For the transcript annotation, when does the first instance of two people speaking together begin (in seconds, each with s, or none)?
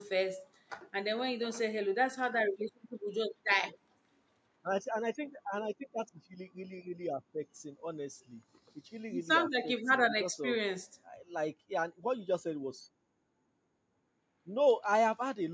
9.1 s